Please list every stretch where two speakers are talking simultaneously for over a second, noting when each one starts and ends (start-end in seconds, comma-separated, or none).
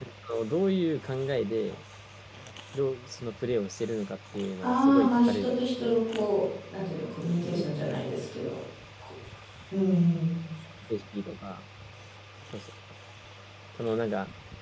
4.6-6.0